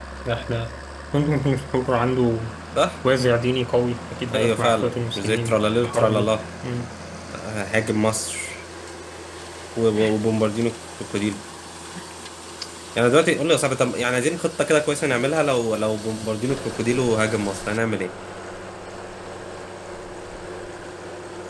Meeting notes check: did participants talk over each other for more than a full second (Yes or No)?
Yes